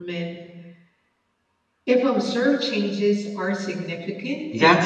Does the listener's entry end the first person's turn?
Yes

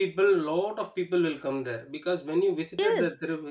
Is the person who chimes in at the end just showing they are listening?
Yes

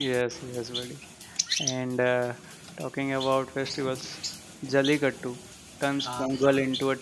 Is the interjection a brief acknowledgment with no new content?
Yes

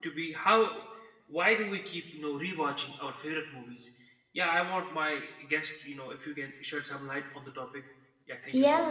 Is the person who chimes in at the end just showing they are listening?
No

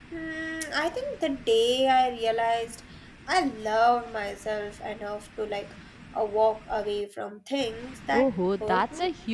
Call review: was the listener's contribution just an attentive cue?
No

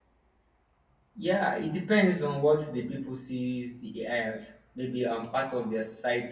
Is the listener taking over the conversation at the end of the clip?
No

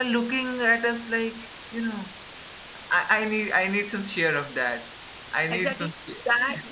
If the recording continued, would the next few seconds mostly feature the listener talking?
Yes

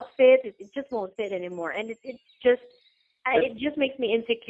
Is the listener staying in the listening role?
Yes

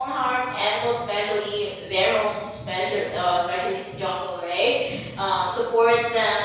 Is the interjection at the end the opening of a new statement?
No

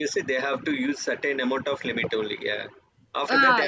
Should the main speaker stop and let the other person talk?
Yes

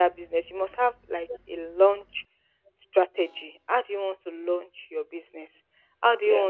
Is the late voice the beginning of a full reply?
No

